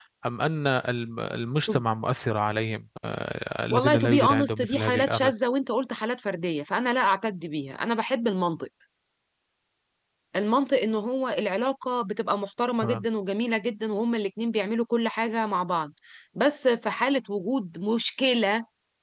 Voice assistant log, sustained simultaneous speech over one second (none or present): present